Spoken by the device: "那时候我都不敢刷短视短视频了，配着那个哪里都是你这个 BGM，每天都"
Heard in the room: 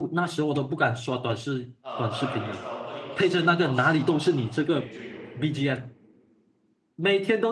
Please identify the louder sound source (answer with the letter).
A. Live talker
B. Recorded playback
B